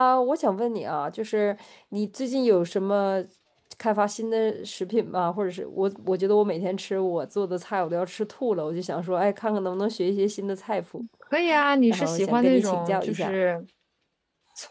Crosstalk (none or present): present